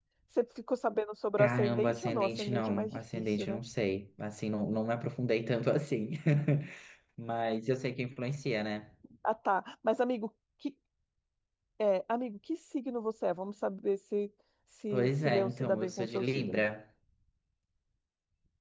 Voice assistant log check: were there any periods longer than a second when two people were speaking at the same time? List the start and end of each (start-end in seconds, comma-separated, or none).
1.4-3.6, 14.9-16.6